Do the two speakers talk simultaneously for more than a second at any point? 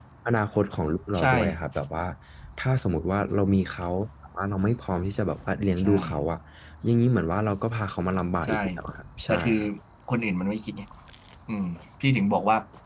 No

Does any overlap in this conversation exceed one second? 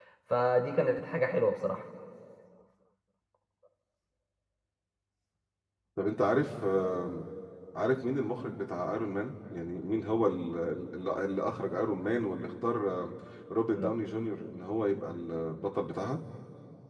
No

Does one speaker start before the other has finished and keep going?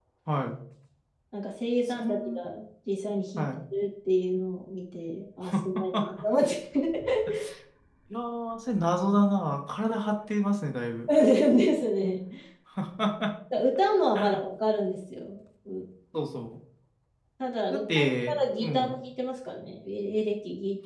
Yes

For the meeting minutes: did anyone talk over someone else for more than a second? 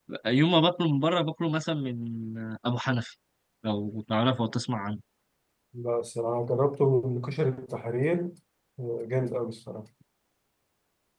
No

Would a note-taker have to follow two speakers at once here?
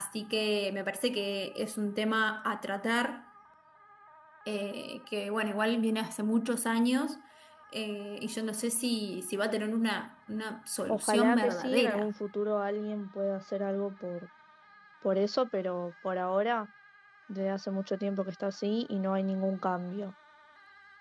Yes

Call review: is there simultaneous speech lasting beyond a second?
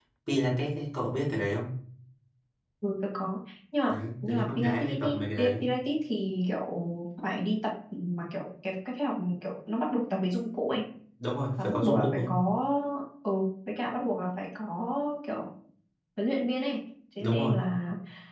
Yes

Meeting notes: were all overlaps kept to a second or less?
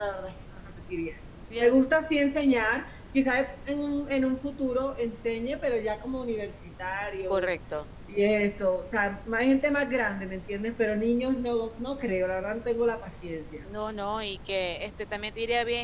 Yes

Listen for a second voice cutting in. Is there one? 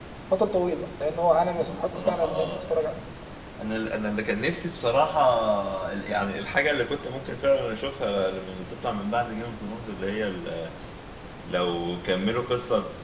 Yes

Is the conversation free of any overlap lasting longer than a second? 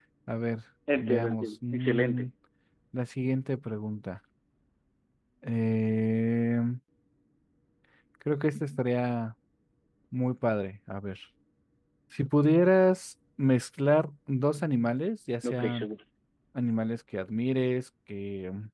No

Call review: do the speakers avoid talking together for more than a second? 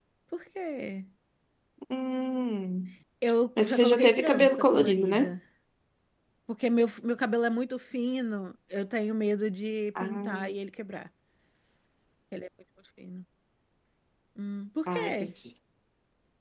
No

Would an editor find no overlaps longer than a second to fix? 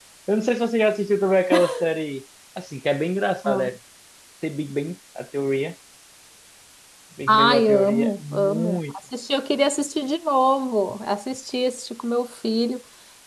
No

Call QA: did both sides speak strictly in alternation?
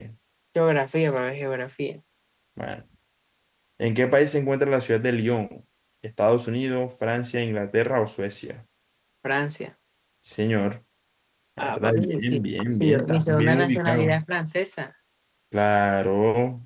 No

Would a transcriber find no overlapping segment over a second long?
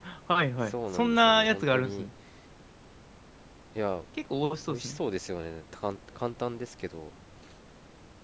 No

